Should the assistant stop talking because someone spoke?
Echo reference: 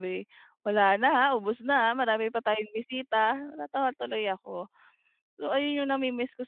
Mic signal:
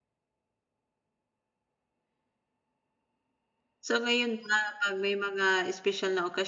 Yes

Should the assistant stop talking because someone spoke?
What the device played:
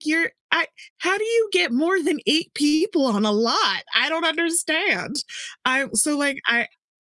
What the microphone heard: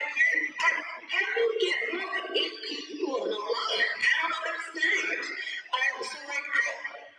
No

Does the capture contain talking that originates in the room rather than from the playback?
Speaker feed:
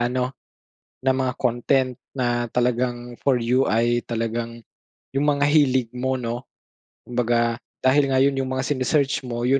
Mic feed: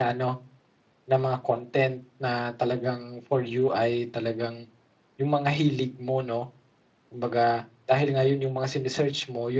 No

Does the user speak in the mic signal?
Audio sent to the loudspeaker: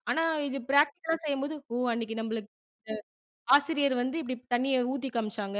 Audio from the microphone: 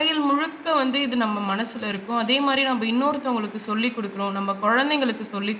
Yes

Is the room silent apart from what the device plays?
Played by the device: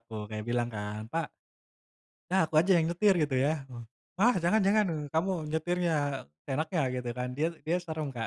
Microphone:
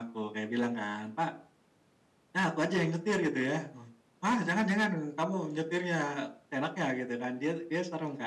Yes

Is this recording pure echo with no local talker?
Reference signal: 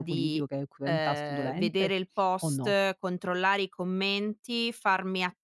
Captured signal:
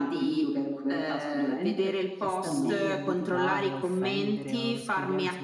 No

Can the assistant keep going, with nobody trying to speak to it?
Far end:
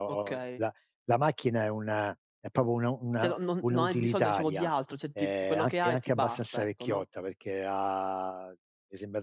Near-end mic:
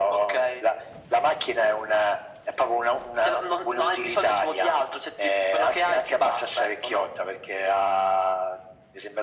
Yes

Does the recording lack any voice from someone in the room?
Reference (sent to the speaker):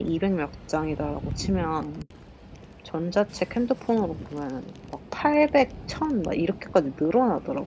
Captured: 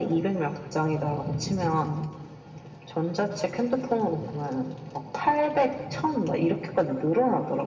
Yes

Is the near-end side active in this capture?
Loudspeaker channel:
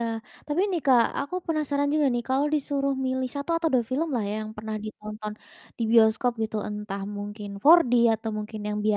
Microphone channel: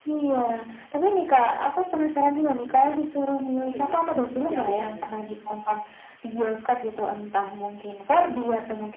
Yes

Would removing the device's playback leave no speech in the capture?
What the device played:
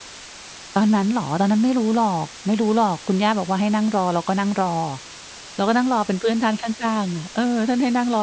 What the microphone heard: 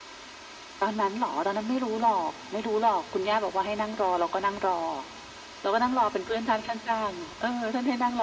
Yes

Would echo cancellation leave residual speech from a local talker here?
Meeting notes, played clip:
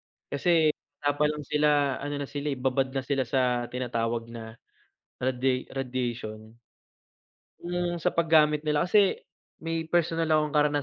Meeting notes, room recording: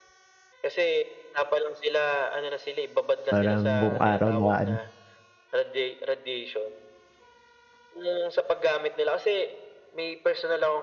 Yes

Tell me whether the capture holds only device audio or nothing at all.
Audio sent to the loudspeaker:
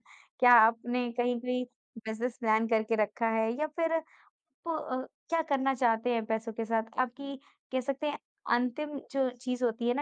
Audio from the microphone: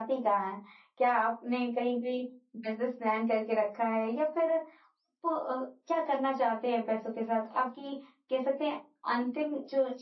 Yes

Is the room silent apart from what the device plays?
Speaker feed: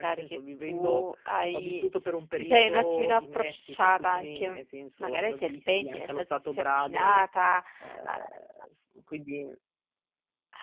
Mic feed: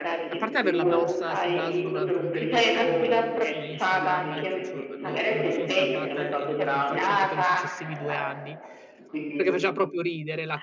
No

